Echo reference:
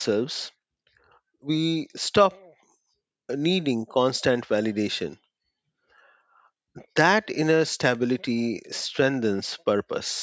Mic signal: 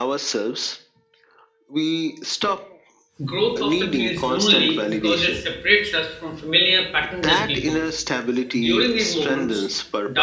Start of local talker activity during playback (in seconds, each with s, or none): 3.2 s